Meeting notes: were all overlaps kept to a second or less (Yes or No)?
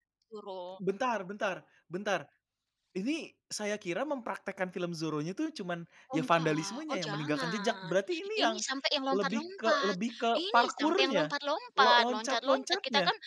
No